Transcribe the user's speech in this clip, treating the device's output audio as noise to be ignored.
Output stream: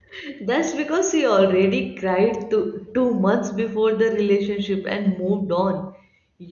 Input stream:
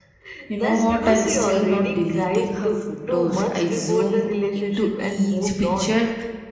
You know what? I'm still not deleting her photos. I zoom into each picture

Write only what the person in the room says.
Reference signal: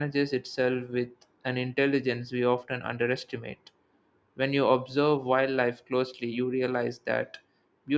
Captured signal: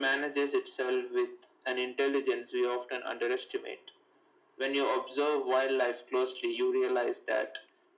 none

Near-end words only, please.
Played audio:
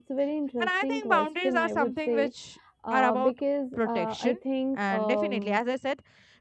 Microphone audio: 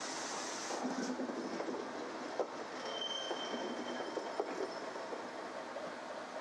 none

